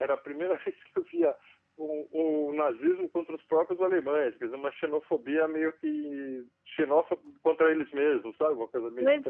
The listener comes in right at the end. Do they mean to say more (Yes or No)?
Yes